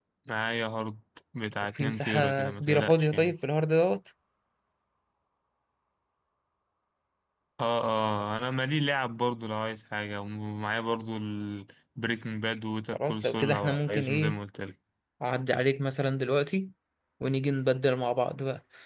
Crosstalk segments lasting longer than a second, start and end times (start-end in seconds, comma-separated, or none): 1.8-3.3, 12.9-14.4